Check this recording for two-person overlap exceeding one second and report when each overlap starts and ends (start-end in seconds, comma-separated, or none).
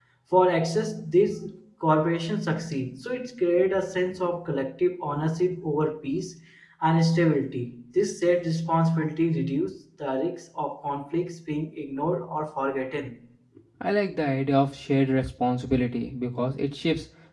none